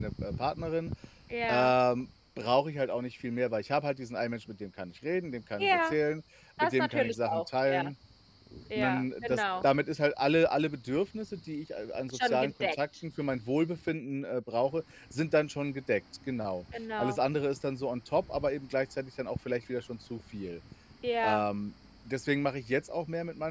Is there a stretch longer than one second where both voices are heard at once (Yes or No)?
Yes